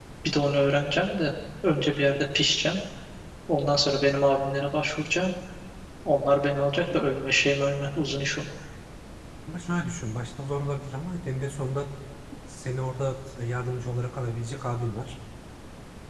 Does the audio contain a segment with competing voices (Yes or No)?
No